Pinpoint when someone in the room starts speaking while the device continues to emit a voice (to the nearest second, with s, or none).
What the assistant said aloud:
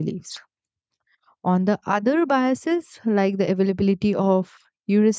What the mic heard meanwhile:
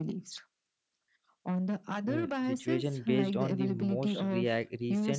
2 s